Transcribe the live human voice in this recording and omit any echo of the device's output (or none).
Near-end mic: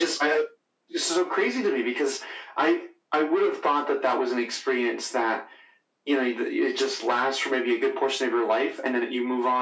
none